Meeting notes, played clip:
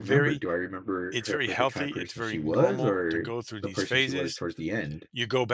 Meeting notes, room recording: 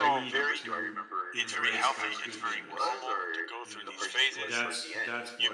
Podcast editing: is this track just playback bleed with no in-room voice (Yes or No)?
No